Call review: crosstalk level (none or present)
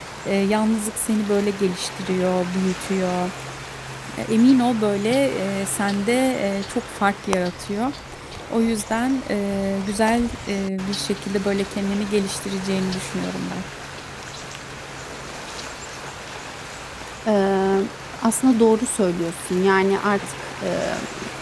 none